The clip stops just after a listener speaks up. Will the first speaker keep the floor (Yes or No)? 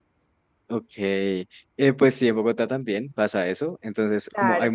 Yes